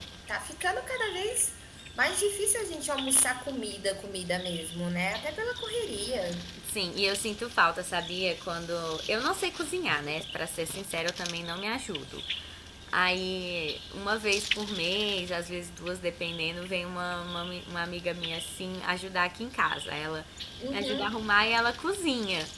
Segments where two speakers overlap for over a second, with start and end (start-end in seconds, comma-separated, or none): none